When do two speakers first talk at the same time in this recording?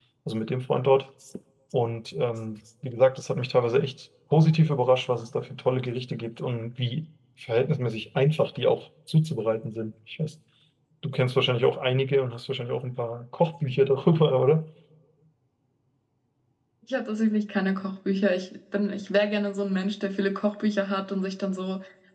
none

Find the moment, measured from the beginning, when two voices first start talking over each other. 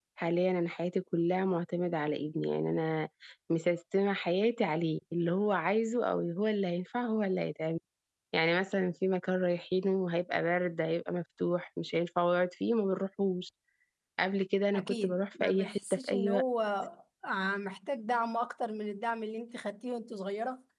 14.8 s

